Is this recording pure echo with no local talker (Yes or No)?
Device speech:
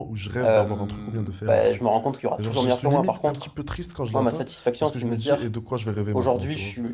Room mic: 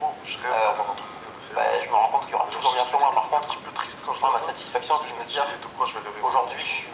Yes